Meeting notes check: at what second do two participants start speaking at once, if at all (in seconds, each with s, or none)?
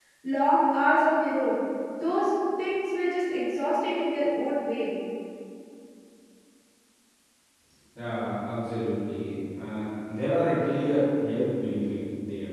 none